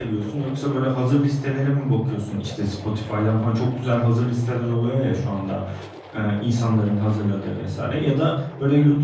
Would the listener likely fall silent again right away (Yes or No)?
Yes